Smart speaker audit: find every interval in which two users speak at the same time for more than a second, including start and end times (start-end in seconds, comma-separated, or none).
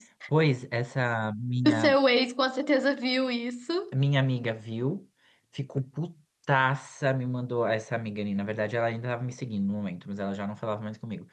none